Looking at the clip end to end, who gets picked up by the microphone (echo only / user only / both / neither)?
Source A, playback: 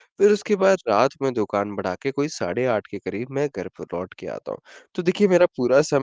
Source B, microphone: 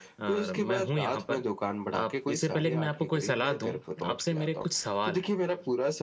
both